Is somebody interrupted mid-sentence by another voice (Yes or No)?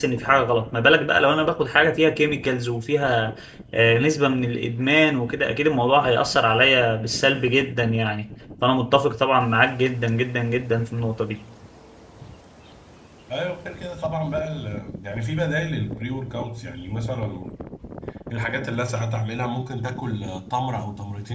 No